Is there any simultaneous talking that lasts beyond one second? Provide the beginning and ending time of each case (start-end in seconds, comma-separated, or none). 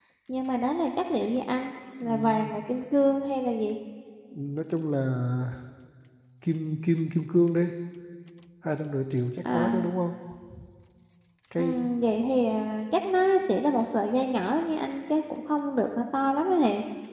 none